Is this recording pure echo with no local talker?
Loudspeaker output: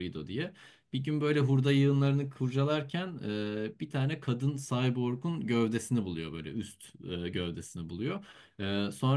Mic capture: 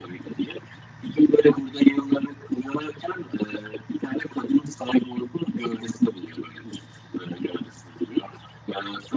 Yes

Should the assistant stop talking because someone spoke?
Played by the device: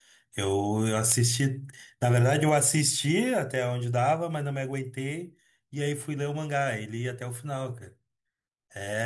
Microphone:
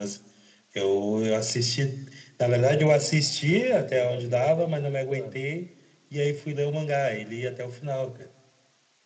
Yes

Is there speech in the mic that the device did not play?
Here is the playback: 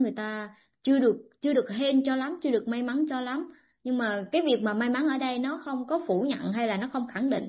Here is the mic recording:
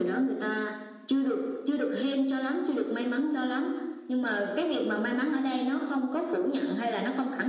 No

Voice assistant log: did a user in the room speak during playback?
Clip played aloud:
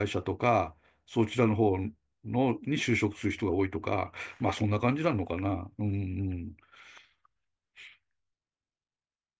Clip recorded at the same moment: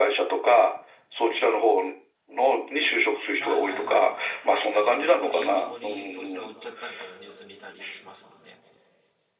Yes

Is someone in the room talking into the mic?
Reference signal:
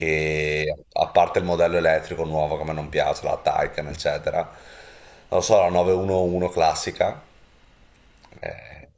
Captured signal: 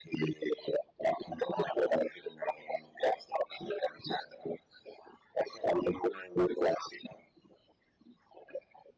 No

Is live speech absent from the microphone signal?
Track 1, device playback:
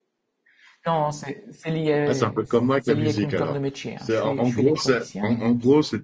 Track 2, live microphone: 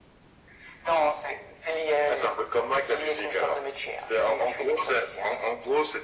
Yes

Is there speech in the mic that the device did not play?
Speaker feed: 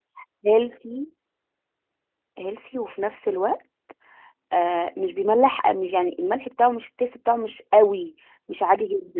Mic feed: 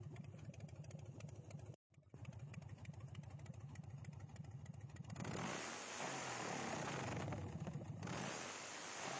No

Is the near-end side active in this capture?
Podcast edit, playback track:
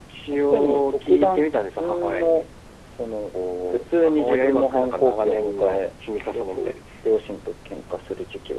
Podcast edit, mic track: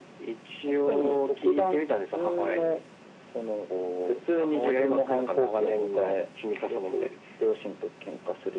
No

